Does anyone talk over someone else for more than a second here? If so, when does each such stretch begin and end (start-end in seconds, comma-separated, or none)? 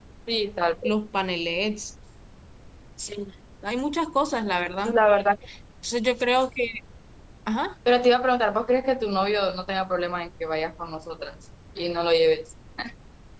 none